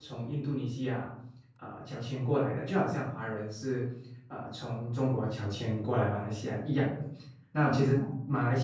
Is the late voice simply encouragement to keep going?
Yes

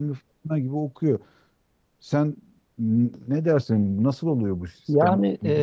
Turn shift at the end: Yes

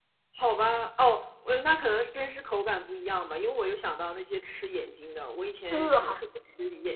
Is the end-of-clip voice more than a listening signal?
No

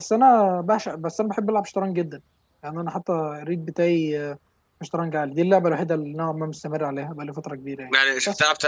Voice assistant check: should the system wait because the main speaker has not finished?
No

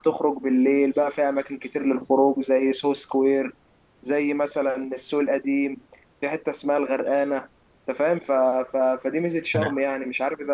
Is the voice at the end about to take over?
No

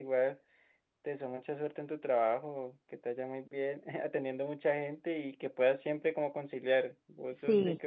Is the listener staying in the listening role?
Yes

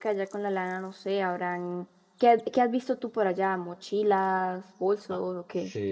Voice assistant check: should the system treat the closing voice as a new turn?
Yes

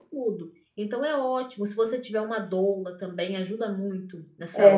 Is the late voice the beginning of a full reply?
Yes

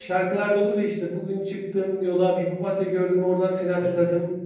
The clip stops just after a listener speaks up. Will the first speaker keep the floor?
Yes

